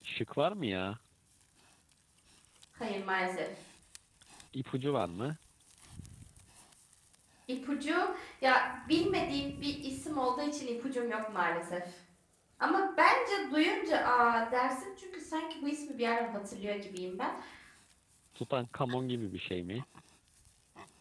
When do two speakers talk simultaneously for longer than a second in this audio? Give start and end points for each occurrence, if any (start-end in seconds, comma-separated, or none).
none